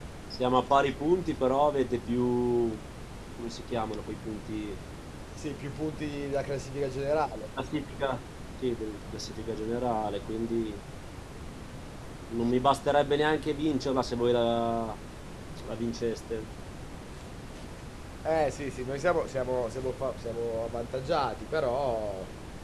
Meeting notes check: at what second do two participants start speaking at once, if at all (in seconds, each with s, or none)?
none